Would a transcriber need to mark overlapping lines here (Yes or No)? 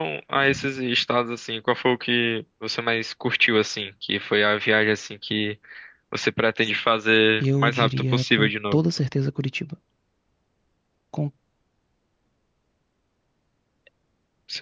Yes